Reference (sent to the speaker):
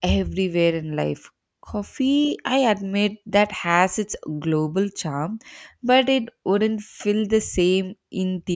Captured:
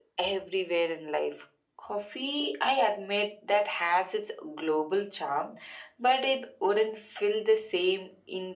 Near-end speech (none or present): none